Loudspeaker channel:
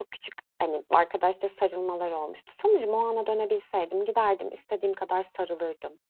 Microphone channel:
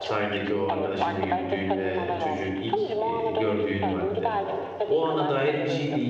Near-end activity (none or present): present